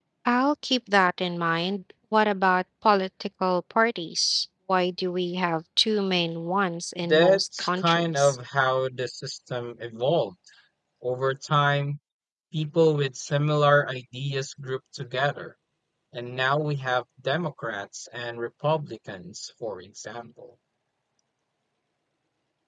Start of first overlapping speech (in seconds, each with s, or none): 7.0 s